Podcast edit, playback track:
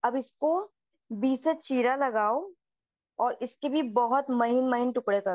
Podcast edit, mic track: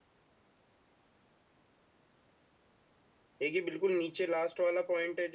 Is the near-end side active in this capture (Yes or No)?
Yes